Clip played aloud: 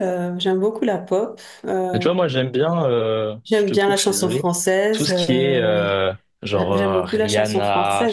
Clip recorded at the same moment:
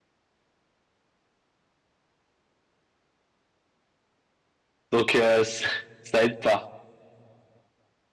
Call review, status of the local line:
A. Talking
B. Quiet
A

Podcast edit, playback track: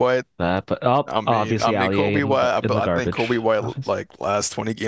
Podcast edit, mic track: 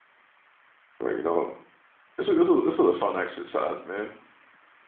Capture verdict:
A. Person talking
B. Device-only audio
A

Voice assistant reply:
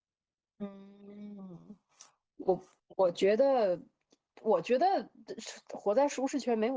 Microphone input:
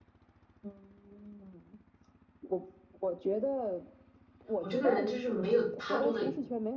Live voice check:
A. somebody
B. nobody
A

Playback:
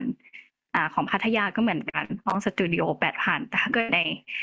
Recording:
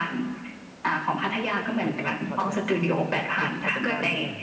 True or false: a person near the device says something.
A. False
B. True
B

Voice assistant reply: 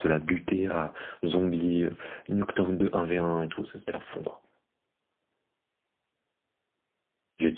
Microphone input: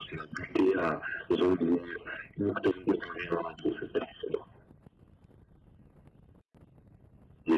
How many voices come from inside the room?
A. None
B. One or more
A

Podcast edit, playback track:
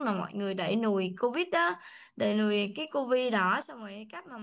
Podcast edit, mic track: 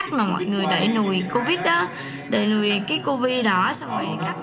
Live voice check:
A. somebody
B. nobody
A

